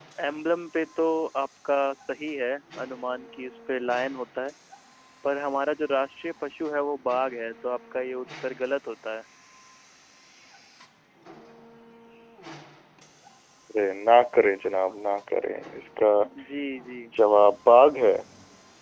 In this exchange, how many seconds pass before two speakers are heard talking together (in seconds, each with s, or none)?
none